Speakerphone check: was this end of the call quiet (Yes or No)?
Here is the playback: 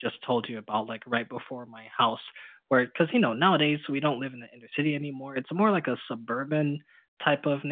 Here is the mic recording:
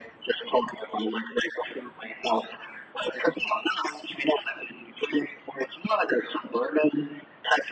Yes